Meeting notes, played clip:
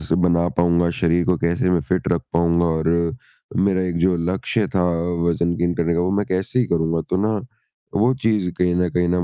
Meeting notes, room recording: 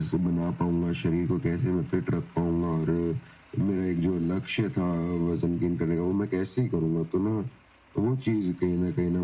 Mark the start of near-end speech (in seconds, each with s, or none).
none